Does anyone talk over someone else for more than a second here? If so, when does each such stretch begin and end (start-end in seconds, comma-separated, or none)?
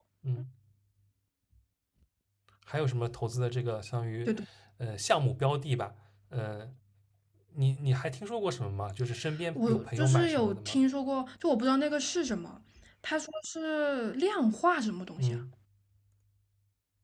9.6-10.8